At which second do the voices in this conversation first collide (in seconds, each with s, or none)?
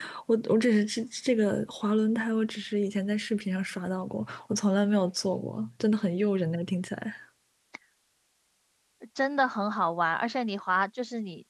none